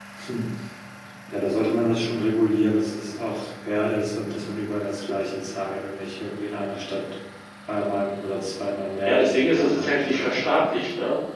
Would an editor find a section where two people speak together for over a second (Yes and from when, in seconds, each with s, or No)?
Yes, from 9.1 s